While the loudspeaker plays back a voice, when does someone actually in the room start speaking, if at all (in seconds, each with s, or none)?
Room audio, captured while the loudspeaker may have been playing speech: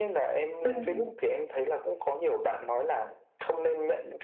0.6 s